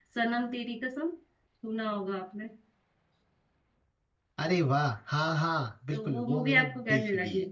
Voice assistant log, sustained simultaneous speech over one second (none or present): present